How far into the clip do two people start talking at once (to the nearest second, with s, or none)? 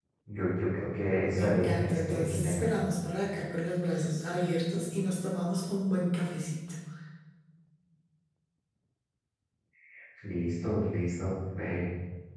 1 s